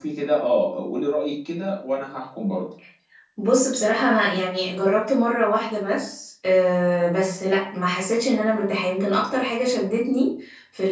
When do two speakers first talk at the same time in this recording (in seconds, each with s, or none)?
none